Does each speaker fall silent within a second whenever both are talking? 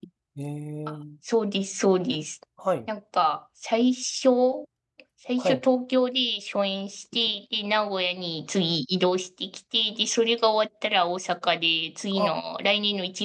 Yes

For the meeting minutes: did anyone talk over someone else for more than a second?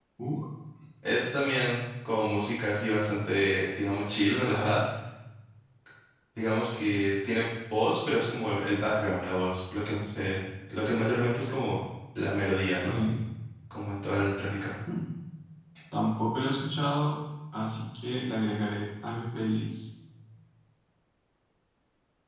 No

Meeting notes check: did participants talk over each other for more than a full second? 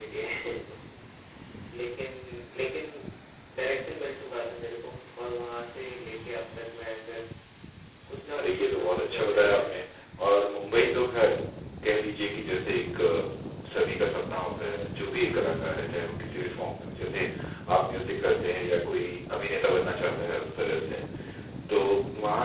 Yes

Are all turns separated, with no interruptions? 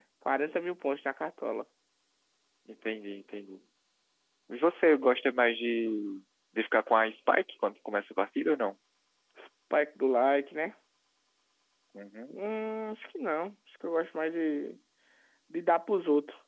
Yes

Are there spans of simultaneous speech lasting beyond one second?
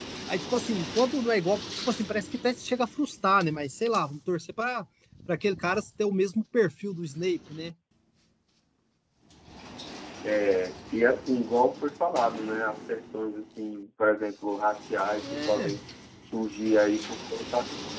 No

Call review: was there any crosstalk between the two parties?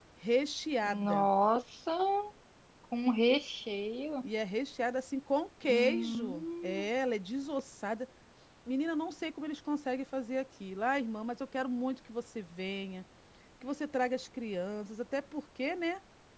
Yes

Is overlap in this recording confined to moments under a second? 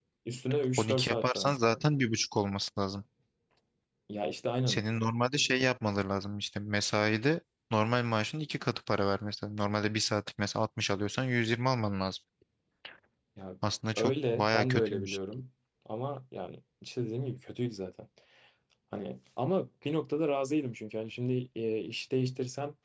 No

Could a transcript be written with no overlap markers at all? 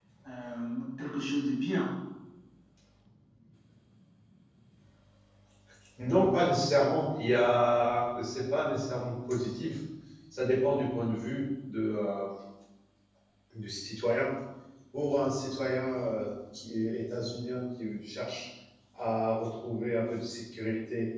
Yes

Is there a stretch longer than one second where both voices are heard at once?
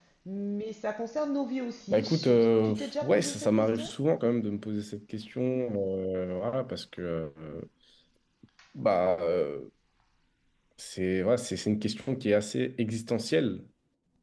Yes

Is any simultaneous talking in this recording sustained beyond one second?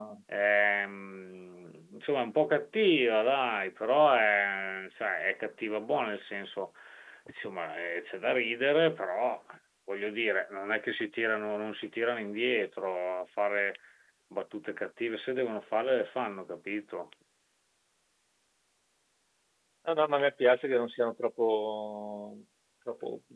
No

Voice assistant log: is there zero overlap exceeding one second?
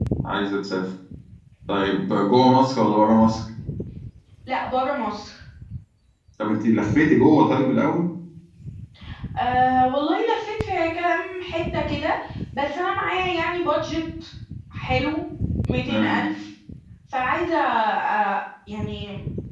Yes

